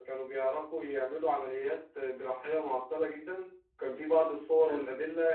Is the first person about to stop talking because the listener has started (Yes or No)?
No